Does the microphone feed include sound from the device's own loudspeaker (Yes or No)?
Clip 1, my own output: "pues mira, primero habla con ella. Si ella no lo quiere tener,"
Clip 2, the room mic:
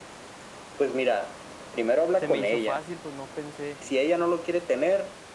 Yes